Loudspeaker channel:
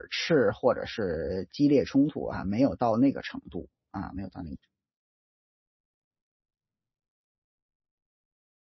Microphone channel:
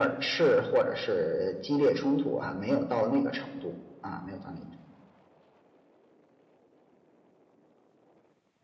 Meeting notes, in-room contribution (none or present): none